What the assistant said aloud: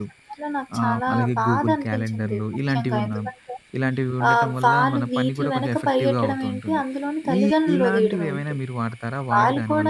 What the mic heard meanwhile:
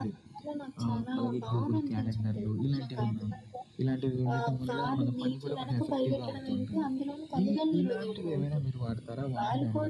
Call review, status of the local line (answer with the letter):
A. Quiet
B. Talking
A